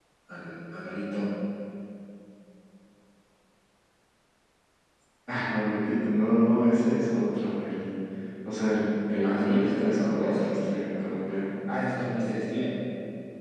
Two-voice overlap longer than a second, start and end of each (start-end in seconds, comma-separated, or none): 9.2-10.6